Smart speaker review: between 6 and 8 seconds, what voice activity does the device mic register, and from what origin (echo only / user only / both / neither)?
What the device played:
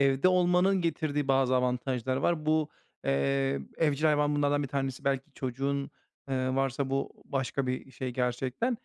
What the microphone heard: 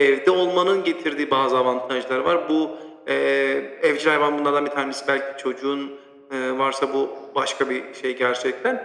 echo only